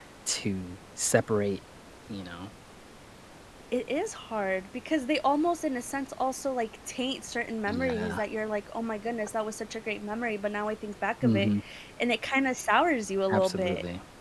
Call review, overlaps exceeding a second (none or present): none